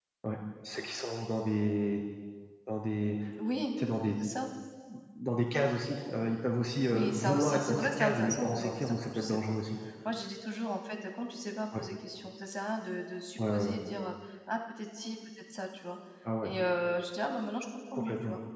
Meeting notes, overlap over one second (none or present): present